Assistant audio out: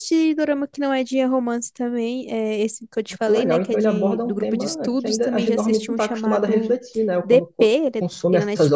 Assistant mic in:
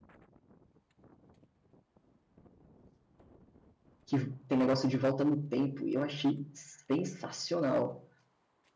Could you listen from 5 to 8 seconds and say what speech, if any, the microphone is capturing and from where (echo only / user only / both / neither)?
user only